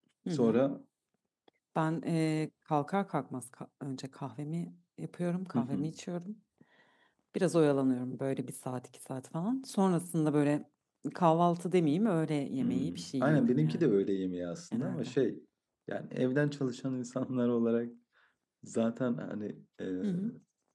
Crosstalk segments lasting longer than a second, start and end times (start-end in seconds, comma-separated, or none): 12.6-13.9